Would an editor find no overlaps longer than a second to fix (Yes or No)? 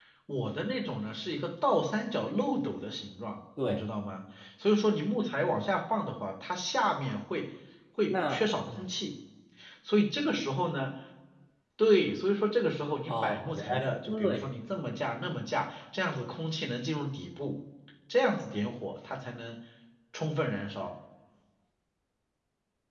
No